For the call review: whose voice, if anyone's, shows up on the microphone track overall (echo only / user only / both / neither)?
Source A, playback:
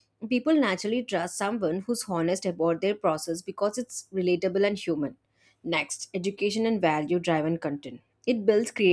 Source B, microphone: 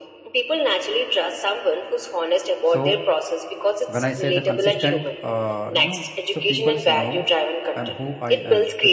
both